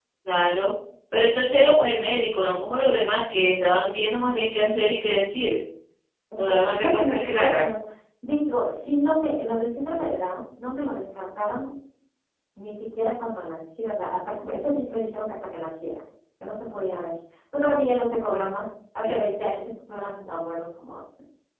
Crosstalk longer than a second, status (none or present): present